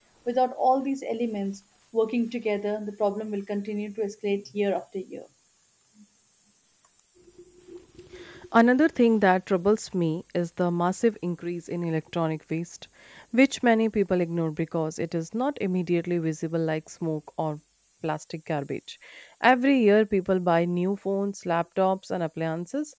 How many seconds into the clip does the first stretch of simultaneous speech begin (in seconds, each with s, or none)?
none